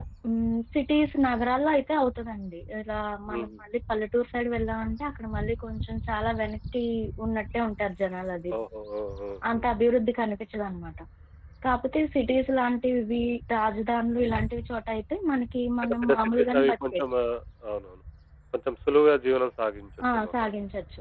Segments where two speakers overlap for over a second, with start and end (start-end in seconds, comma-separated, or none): 15.8-17.0